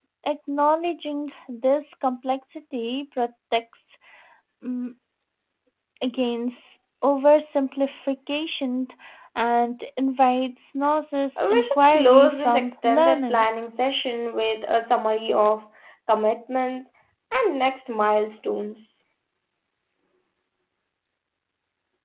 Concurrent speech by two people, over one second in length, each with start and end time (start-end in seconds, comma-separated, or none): 11.4-13.4